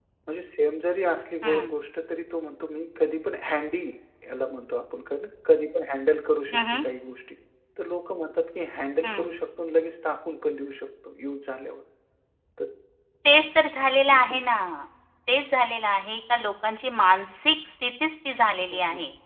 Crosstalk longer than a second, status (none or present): none